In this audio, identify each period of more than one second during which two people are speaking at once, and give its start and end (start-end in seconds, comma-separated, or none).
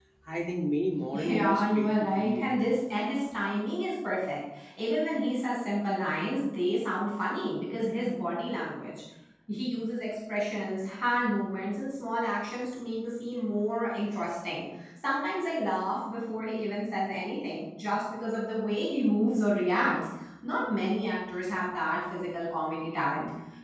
1.1-2.5